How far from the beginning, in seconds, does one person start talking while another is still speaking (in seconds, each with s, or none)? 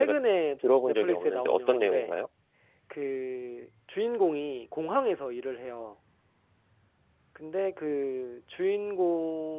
0.8 s